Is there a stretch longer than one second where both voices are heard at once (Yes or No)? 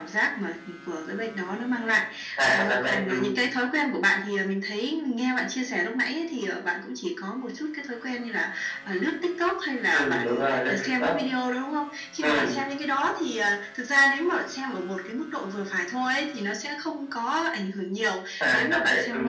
Yes